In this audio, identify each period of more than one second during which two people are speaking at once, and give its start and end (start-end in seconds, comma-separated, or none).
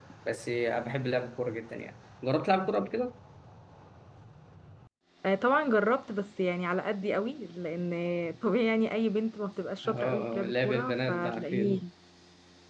9.8-11.8